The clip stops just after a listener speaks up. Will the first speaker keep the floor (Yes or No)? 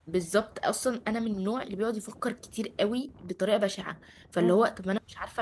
Yes